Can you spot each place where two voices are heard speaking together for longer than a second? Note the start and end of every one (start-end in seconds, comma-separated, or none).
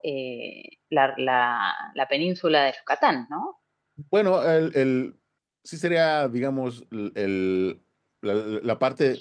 none